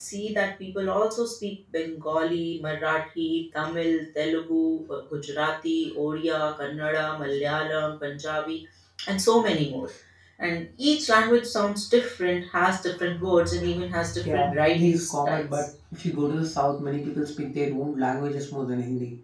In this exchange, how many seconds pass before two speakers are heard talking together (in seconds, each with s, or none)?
14.2 s